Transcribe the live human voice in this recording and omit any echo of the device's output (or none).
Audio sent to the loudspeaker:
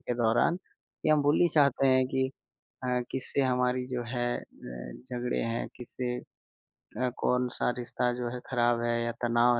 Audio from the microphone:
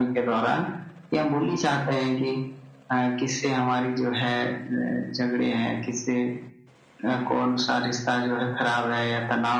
none